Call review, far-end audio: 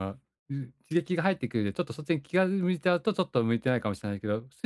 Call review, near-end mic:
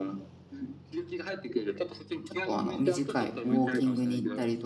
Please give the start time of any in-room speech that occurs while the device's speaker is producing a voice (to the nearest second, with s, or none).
2 s